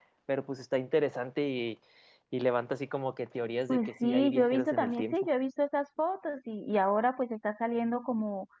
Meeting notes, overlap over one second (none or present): present